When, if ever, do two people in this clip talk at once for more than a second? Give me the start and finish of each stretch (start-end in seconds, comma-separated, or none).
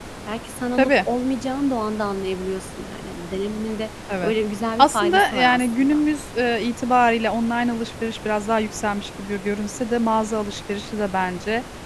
4.8-6.0